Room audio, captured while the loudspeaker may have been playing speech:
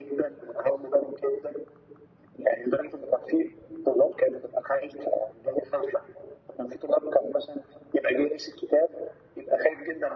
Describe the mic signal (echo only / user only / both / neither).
echo only